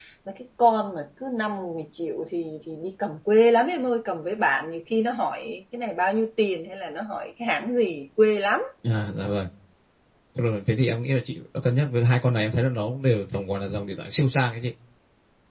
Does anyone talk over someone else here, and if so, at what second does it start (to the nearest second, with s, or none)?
none